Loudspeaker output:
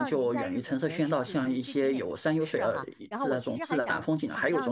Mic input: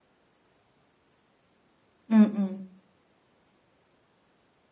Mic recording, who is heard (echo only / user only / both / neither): user only